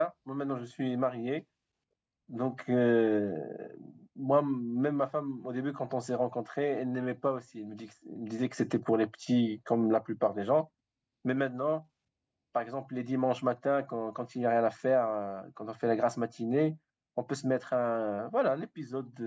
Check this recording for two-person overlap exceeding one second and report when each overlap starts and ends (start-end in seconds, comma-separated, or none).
none